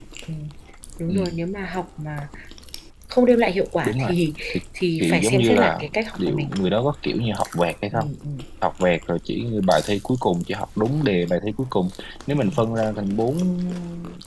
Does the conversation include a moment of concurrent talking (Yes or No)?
Yes